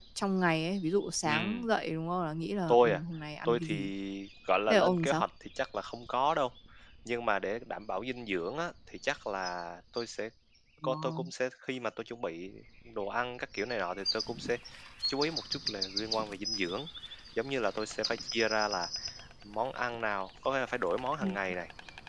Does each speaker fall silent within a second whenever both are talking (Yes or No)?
Yes